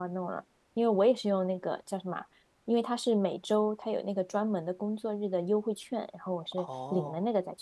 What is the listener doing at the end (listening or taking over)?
taking over